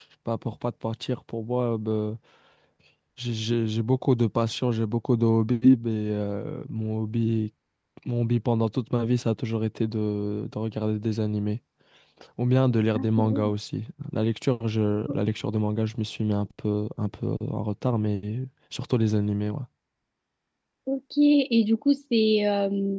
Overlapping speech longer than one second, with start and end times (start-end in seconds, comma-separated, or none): none